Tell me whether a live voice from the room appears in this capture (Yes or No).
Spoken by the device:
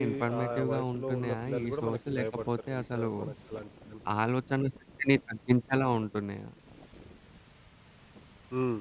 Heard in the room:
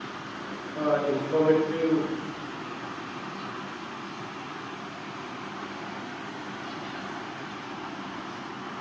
Yes